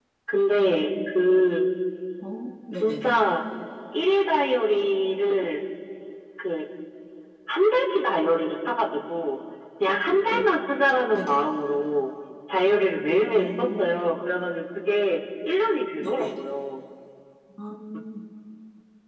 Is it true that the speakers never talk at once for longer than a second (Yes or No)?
Yes